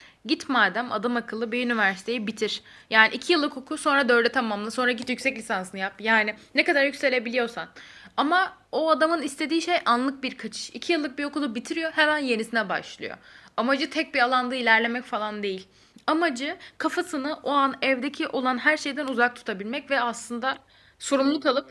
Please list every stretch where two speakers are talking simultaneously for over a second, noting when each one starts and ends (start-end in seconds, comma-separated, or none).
none